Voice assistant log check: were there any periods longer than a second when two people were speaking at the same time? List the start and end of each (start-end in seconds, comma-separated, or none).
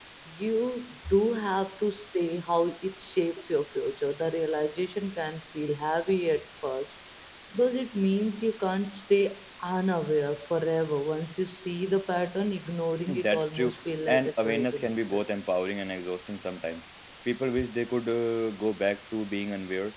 13.1-15.2